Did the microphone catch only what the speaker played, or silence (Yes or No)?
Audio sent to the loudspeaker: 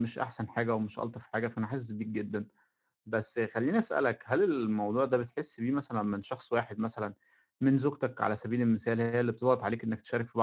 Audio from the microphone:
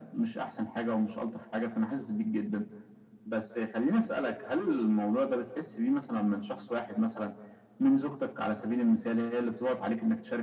Yes